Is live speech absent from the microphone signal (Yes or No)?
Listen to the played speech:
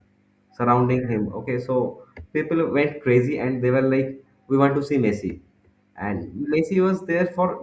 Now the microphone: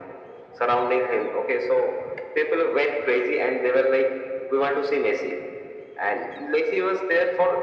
Yes